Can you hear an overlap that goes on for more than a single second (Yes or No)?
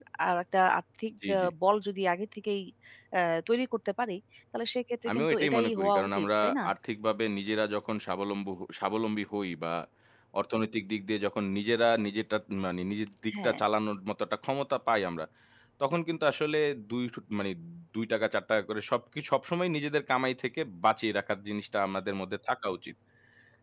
Yes